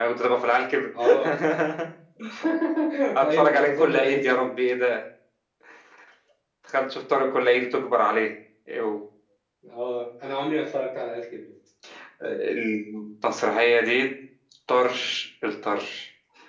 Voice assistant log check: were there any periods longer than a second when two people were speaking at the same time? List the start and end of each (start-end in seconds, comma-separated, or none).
3.2-4.5